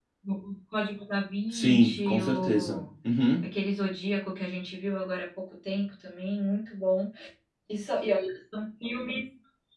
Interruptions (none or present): present